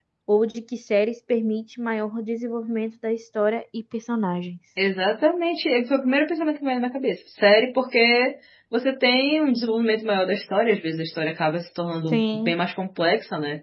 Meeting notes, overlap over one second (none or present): none